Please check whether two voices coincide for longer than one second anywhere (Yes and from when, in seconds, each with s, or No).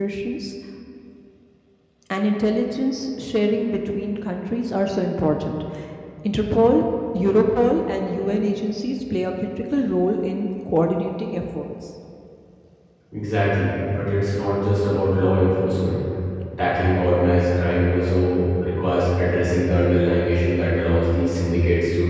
No